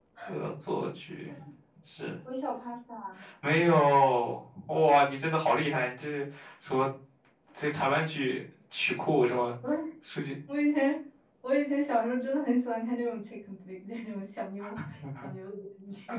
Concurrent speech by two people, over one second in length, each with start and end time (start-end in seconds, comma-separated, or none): none